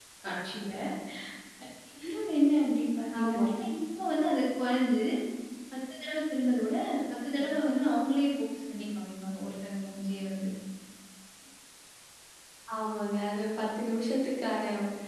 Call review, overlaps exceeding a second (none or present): none